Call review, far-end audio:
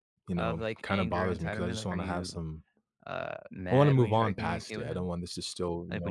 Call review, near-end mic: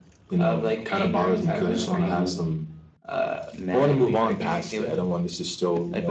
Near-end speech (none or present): none